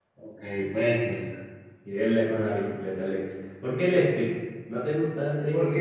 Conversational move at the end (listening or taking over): taking over